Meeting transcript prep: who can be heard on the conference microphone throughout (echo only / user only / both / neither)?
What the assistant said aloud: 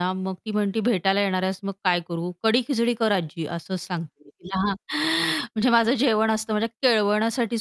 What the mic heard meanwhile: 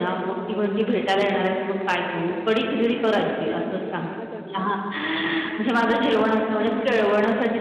both